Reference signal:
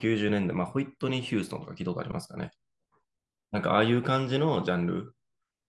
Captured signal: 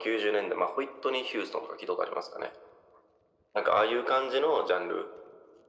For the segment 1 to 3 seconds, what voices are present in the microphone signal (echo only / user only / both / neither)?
echo only